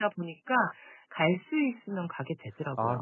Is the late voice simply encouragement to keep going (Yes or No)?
No